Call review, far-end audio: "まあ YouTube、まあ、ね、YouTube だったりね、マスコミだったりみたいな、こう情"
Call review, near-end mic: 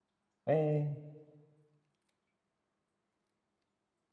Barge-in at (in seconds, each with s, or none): 0.5 s